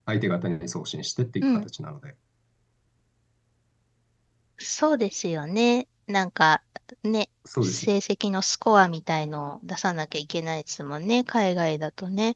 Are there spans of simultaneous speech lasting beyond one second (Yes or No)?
No